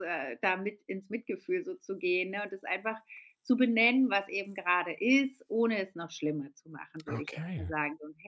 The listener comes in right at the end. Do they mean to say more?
No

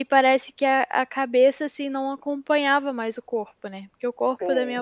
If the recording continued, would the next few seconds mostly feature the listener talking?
No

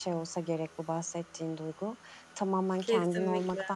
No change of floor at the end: Yes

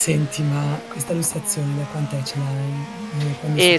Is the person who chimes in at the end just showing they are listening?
No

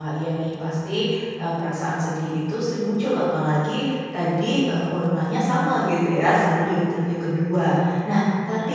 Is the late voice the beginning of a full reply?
No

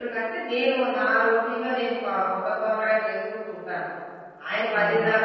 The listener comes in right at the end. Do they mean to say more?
No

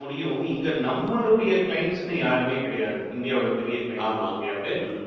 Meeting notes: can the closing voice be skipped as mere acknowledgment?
Yes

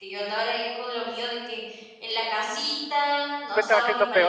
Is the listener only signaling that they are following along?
No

